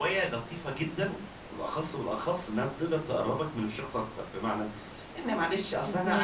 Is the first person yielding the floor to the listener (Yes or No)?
No